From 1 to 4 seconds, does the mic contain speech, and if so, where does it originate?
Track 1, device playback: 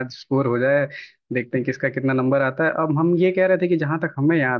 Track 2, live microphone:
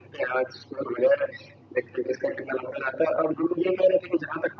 echo only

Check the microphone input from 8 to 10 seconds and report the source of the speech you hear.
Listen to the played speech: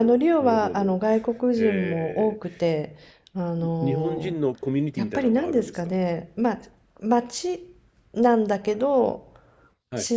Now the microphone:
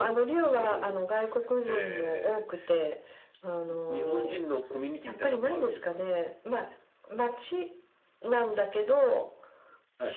echo only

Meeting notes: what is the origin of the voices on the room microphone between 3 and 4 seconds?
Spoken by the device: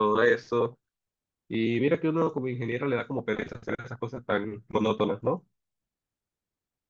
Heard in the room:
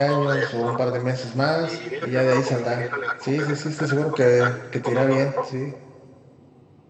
both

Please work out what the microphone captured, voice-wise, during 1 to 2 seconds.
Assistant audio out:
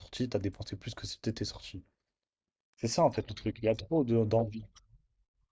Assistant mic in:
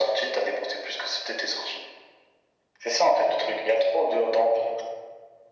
echo only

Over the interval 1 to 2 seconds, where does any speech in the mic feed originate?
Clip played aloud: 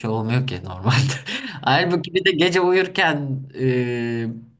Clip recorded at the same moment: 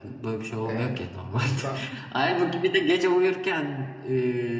both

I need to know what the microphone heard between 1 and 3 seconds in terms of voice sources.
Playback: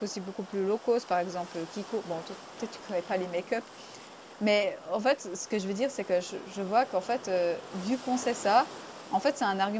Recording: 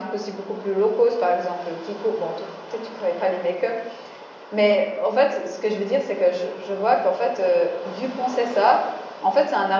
echo only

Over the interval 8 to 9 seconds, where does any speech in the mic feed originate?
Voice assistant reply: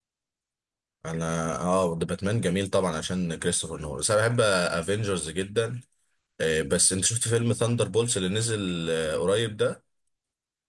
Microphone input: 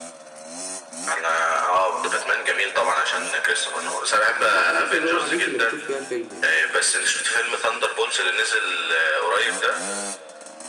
echo only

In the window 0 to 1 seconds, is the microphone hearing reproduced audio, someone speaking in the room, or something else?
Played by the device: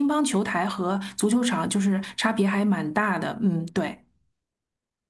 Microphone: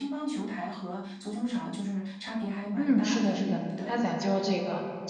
echo only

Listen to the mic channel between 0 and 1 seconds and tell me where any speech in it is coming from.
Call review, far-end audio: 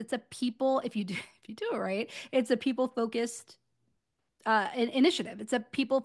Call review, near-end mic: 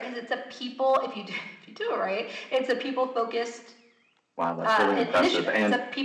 echo only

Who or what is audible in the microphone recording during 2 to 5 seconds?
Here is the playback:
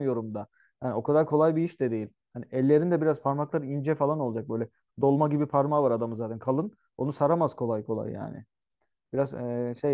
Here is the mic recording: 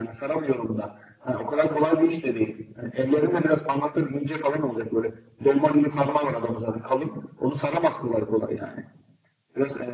echo only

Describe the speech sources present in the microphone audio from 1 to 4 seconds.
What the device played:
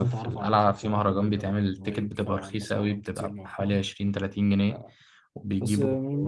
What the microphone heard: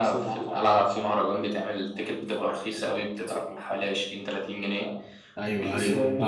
echo only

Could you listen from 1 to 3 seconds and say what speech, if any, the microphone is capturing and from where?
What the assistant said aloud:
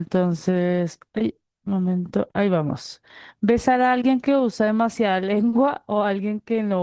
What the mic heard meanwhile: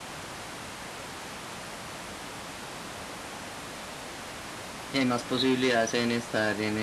neither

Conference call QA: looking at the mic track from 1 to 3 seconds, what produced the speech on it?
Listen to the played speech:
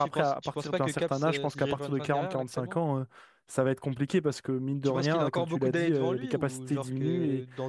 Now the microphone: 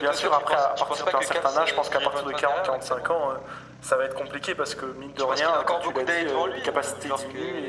echo only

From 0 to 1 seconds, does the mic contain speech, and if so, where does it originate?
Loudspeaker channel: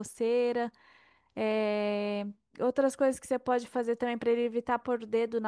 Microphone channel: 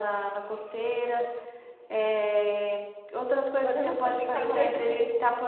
echo only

